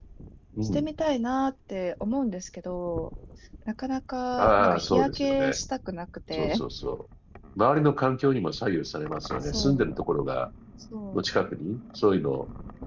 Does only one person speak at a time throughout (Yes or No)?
No